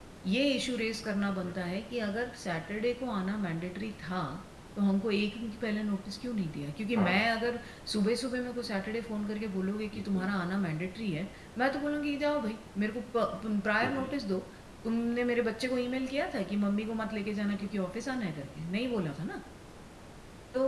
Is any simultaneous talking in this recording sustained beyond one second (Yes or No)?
No